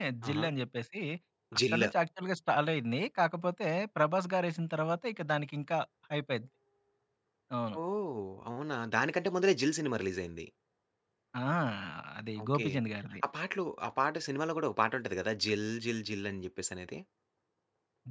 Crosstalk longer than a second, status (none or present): none